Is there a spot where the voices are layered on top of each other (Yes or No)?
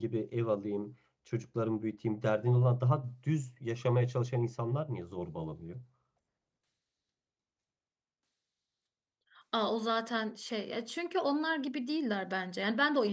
No